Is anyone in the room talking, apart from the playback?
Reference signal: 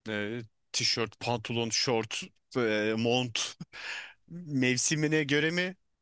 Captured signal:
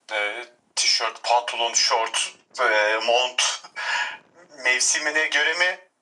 No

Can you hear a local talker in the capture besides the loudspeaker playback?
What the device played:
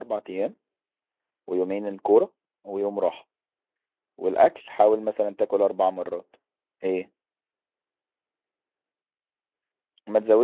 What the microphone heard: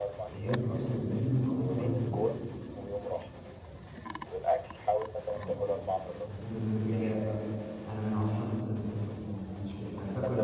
Yes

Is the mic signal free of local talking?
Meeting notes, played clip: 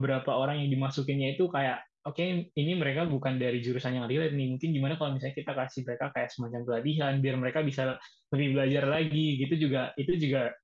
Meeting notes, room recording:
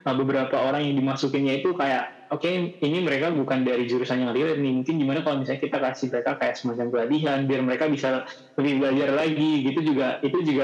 Yes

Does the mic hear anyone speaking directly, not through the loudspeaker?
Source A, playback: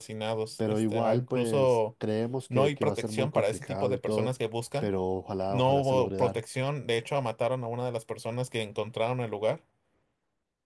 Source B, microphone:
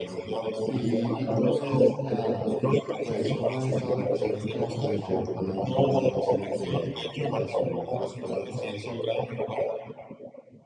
Yes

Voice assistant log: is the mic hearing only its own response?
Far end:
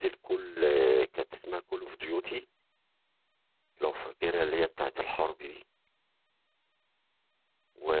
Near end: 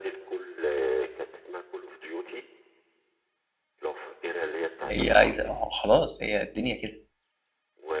No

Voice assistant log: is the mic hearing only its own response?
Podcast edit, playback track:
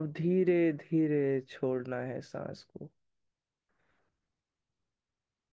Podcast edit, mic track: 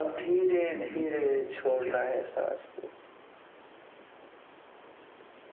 No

